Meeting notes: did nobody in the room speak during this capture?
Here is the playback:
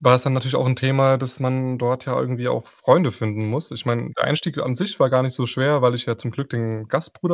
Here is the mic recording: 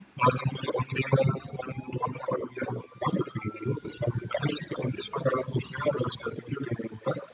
Yes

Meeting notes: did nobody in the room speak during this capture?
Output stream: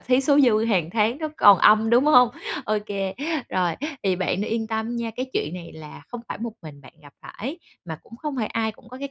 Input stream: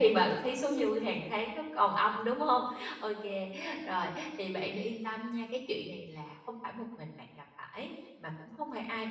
Yes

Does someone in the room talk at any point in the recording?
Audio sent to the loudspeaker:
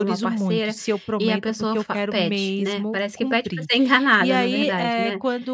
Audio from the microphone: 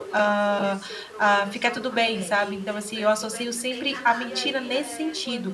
Yes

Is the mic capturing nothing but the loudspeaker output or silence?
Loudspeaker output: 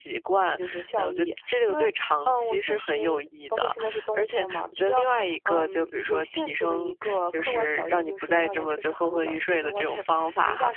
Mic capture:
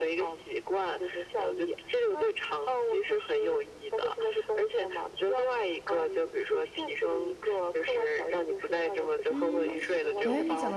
No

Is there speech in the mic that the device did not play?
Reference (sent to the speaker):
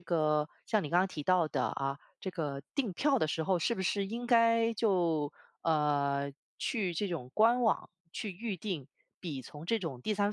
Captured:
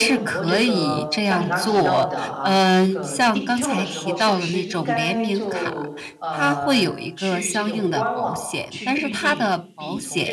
Yes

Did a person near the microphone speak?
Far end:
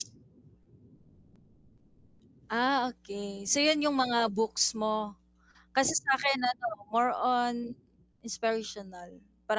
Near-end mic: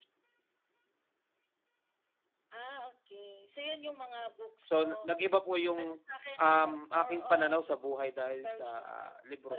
Yes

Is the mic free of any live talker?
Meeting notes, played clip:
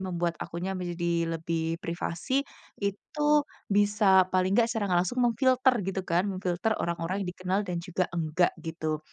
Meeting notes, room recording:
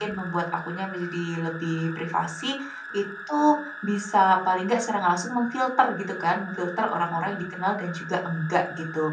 Yes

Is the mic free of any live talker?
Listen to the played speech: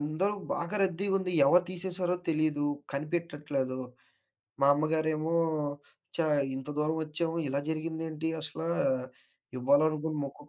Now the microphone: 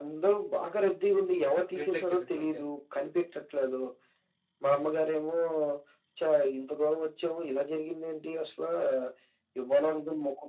No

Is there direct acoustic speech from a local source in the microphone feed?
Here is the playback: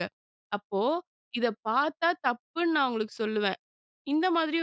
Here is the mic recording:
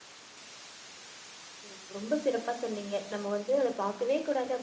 Yes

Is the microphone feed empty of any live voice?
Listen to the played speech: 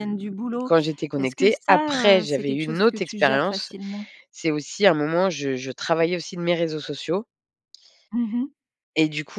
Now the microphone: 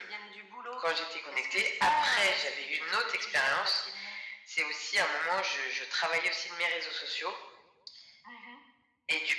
Yes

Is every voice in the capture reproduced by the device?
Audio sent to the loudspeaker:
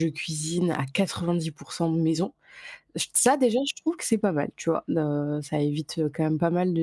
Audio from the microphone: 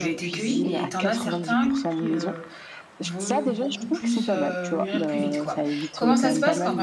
No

